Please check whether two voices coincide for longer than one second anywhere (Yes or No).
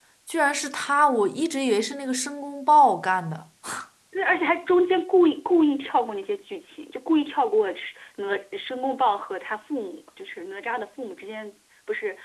No